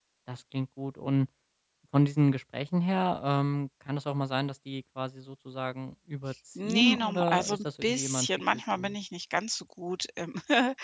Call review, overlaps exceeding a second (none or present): present